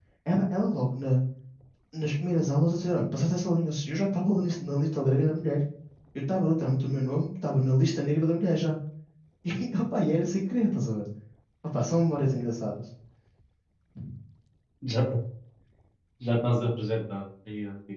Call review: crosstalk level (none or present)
none